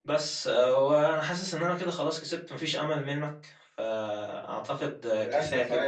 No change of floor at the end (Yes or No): No